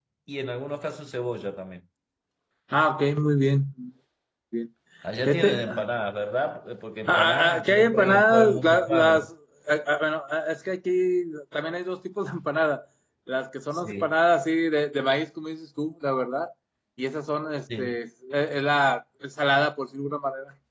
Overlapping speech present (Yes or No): Yes